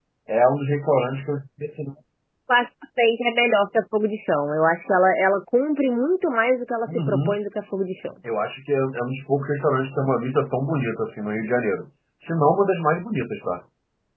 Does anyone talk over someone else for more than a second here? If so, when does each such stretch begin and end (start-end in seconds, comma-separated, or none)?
none